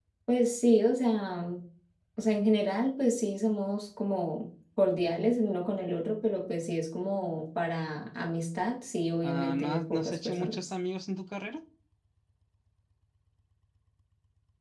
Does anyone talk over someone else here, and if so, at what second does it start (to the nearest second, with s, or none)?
9 s